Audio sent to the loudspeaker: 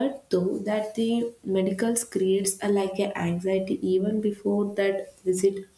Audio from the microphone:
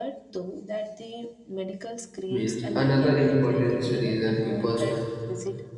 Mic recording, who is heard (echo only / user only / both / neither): both